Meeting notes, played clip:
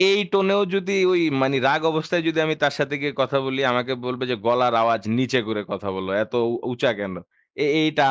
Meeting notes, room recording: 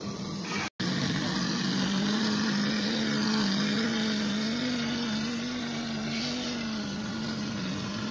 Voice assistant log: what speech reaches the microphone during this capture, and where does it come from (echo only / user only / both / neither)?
neither